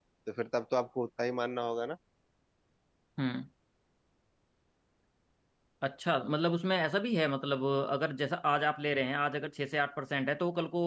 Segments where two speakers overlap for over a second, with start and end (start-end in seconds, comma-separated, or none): none